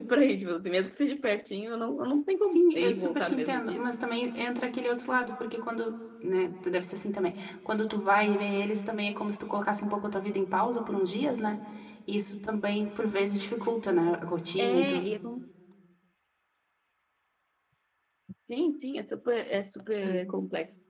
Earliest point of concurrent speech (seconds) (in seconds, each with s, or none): 2.5 s